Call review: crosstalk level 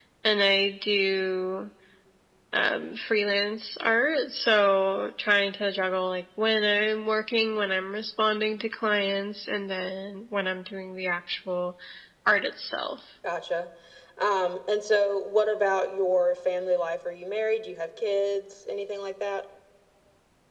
none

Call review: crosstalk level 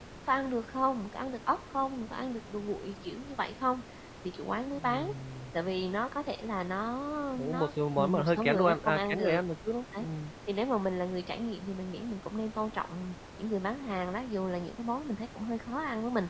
present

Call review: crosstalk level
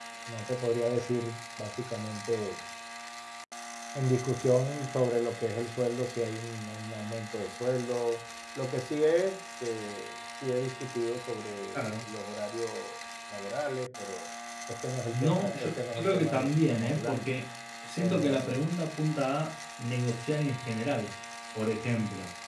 present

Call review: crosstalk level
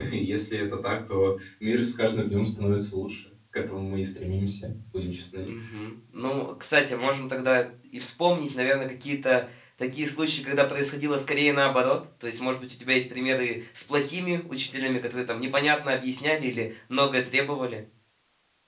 none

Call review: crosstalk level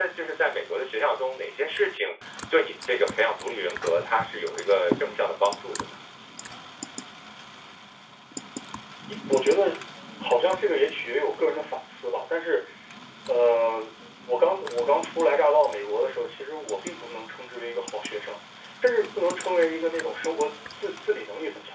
none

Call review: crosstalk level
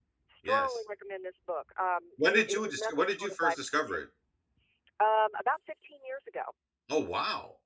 present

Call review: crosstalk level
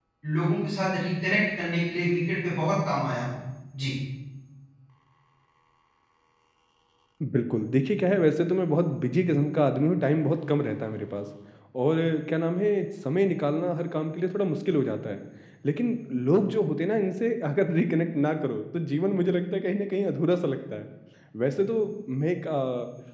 none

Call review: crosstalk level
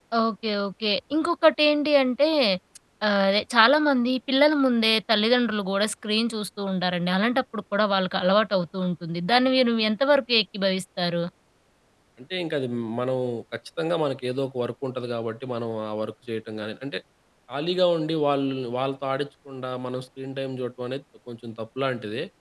none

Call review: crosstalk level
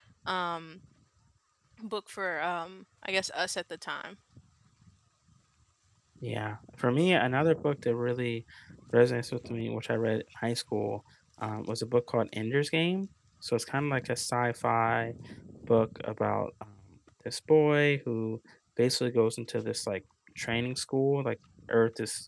none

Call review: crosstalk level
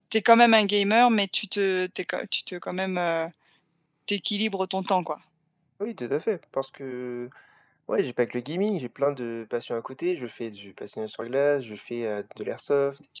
none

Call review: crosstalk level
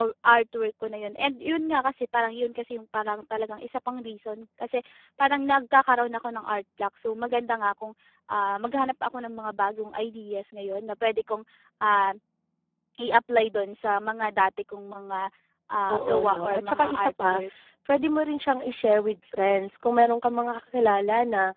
present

